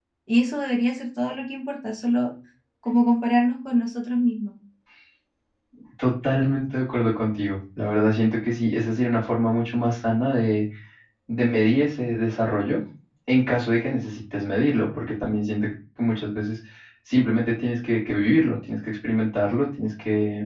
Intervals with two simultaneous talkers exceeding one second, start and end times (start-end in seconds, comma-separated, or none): none